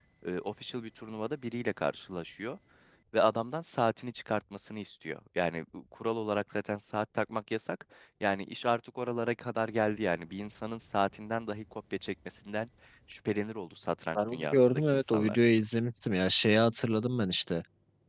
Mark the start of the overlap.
14.2 s

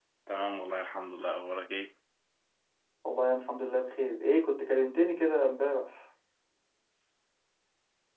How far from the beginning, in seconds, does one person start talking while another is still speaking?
none

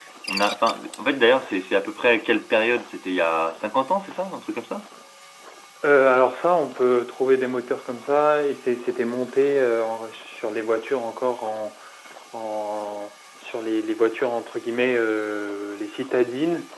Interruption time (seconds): none

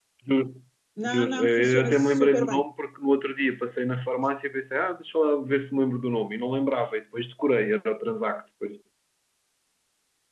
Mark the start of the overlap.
1.1 s

